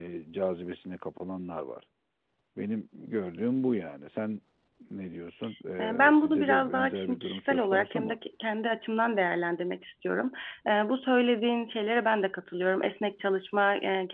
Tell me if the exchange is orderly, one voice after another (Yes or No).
No